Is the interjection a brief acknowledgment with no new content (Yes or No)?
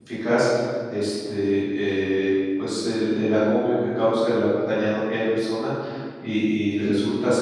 Yes